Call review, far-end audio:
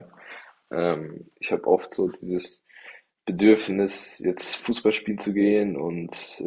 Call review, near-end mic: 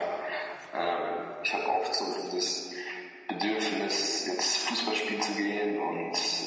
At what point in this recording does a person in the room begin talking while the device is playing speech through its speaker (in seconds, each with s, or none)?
none